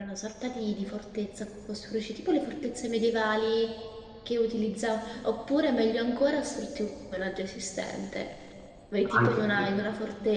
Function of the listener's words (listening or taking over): listening